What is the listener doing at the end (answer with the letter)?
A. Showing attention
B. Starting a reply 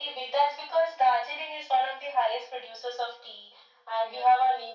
A